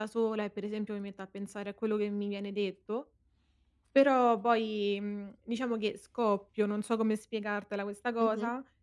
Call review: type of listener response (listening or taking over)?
taking over